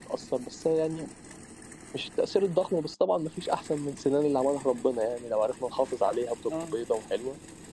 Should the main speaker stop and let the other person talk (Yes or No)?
No